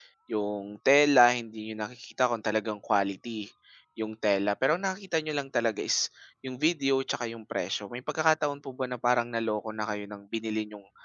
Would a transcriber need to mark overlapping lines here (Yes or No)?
No